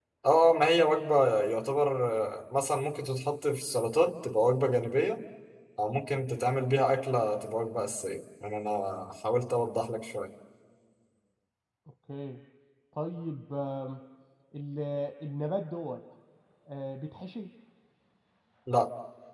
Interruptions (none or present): none